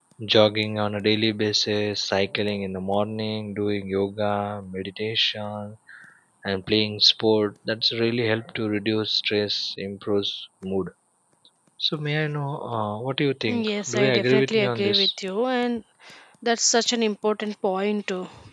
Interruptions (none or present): present